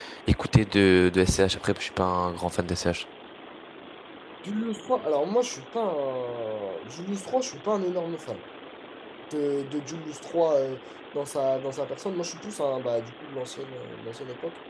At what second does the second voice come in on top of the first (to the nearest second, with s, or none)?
none